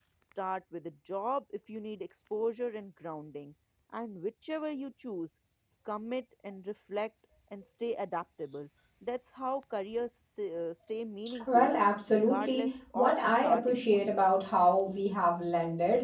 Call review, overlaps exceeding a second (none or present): present